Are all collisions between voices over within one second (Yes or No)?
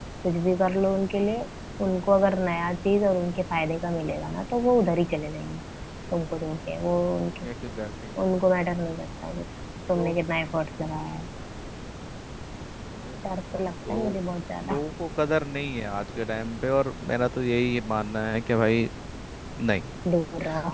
Yes